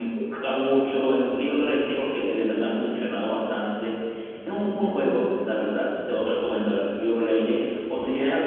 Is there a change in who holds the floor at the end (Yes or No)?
No